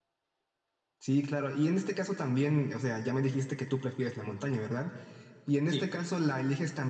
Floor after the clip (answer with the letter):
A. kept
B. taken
A